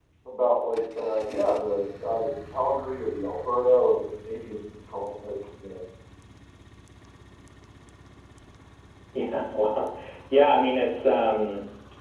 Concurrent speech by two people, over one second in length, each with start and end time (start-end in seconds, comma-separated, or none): none